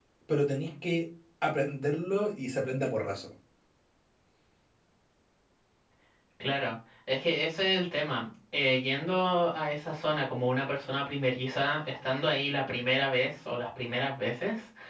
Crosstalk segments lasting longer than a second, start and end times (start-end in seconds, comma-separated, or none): none